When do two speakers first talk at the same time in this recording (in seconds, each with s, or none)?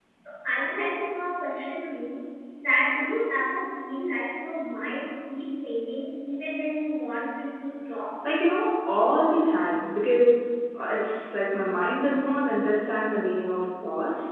none